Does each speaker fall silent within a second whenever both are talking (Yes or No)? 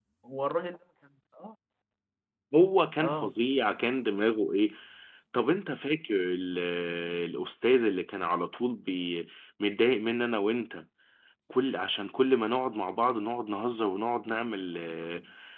Yes